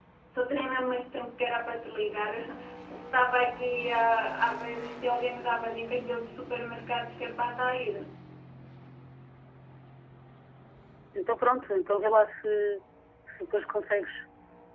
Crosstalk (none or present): none